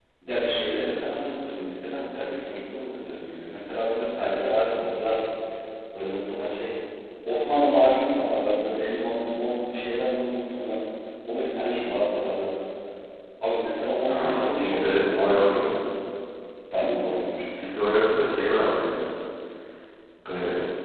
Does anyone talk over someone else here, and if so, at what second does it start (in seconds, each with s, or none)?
14.1 s